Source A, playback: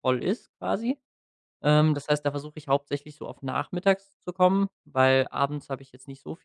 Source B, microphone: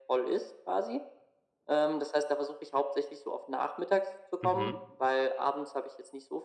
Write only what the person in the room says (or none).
Mhm.